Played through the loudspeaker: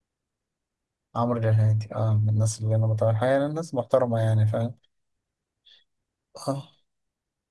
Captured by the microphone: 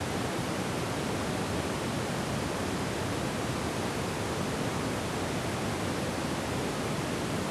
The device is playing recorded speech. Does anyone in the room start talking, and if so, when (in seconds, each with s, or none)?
none